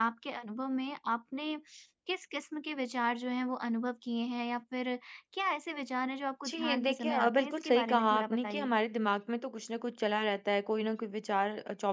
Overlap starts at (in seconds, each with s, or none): 6.4 s